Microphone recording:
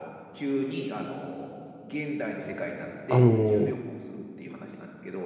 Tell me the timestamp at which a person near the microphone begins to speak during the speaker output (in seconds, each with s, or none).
3.1 s